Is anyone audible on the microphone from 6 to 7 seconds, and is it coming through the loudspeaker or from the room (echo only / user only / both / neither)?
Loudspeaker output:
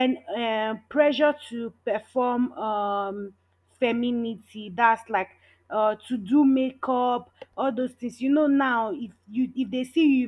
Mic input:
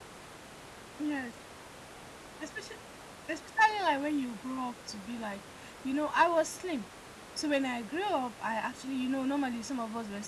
user only